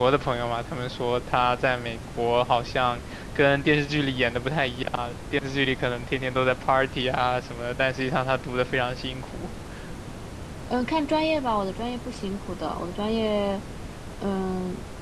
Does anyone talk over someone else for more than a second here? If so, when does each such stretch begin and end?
none

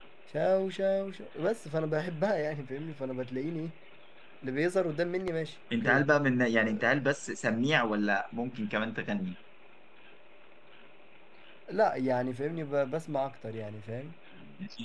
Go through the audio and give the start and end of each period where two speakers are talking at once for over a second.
none

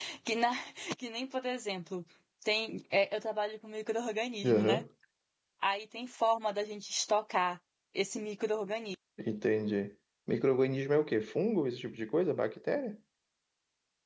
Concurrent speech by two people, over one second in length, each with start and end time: none

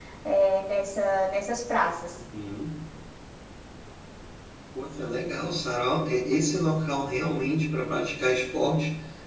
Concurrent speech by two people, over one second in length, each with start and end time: none

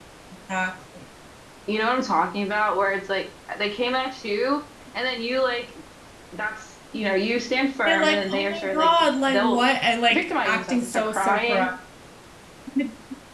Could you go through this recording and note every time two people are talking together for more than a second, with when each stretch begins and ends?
7.9-9.6, 10.1-11.7

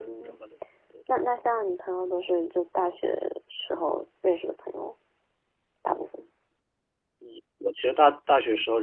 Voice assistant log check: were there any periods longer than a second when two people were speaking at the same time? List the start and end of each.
none

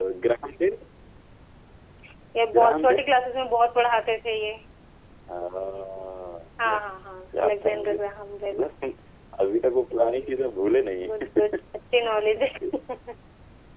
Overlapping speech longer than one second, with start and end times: 6.6-7.9

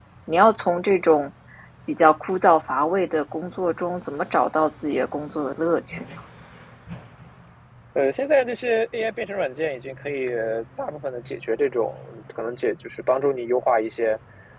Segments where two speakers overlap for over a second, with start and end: none

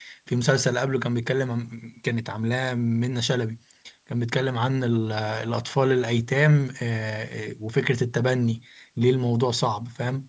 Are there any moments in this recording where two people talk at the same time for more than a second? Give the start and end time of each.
none

